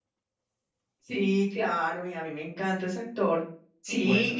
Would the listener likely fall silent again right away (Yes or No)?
Yes